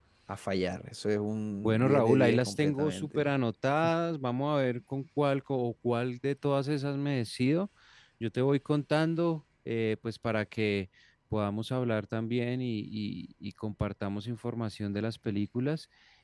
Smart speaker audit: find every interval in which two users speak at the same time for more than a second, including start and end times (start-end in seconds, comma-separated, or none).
1.6-3.3